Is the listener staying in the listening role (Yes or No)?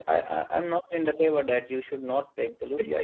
Yes